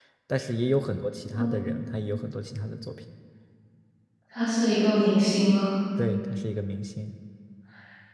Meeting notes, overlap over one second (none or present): none